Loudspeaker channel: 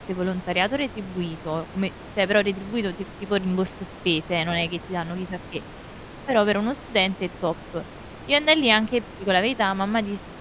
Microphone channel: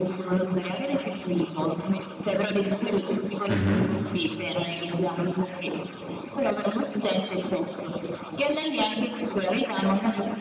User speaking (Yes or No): Yes